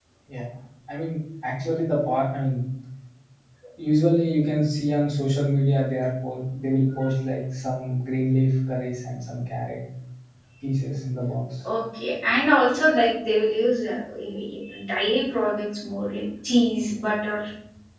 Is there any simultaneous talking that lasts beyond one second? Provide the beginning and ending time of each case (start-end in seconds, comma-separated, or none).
none